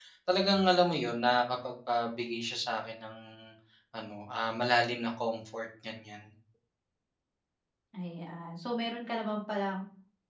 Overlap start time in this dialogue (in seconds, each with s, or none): none